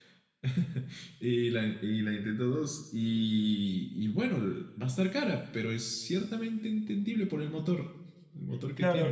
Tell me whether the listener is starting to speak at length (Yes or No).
Yes